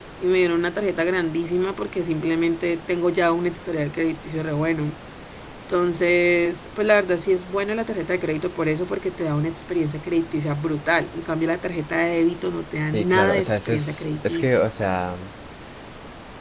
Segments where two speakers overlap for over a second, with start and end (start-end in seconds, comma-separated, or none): 12.9-14.6